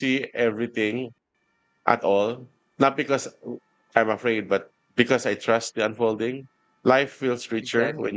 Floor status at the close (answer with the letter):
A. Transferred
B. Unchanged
B